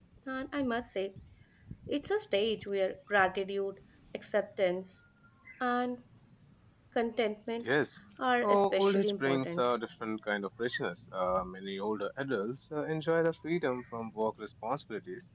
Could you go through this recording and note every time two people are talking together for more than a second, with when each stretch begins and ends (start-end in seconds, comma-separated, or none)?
8.4-9.6